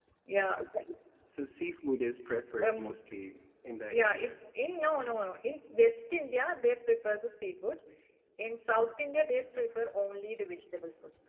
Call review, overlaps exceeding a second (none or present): none